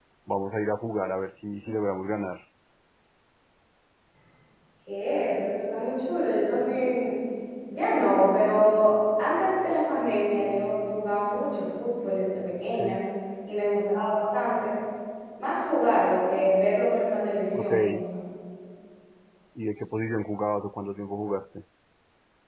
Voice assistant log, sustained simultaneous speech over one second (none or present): none